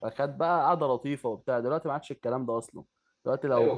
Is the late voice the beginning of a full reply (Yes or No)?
No